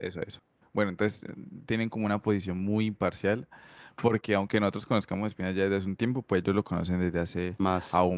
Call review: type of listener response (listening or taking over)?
listening